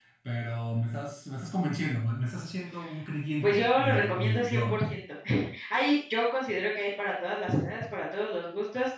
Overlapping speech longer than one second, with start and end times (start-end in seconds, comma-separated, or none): 3.4-4.8